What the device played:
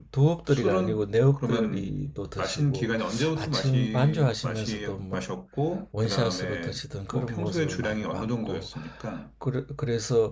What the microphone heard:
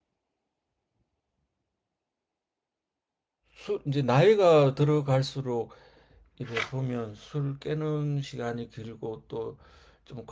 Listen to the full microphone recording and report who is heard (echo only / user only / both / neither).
user only